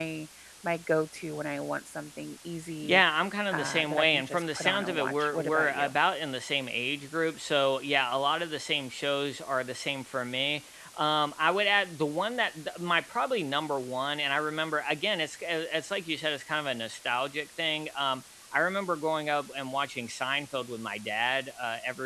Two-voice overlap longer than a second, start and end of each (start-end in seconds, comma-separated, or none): 3.5-6.0